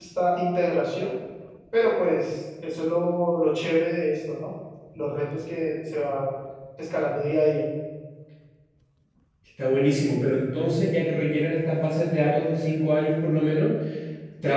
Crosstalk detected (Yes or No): No